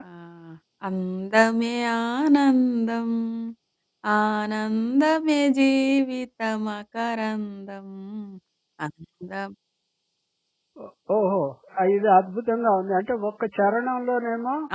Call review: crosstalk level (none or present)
none